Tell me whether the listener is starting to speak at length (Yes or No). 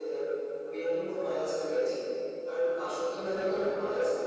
No